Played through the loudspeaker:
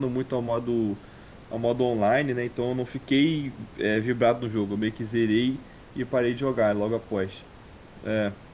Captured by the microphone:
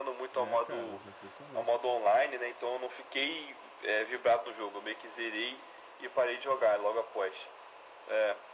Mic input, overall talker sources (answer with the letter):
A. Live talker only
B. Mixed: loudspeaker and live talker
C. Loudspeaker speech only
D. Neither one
B